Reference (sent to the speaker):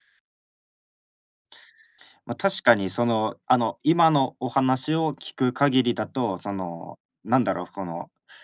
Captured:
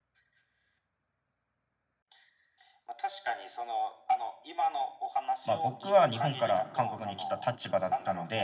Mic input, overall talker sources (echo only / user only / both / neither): both